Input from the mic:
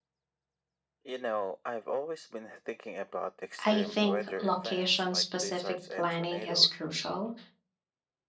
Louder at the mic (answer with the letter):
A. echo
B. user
B